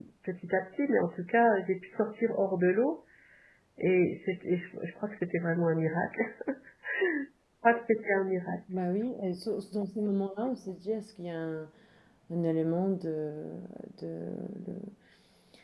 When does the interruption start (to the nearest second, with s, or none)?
none